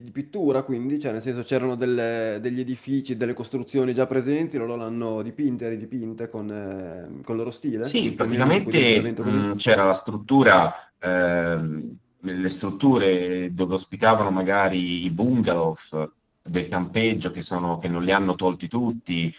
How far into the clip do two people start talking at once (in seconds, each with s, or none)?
7.8 s